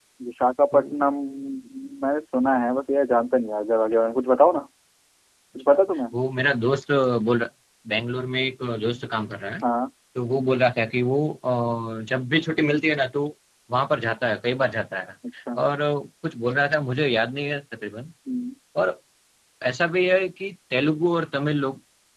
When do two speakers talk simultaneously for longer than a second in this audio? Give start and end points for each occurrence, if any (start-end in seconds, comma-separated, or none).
none